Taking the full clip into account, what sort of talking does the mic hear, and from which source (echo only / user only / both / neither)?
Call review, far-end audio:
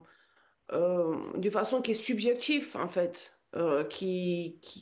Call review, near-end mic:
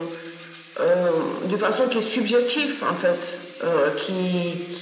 echo only